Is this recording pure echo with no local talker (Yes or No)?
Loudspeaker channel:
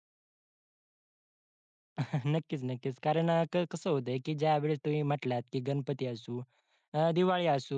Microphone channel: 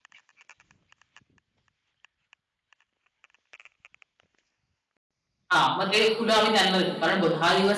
No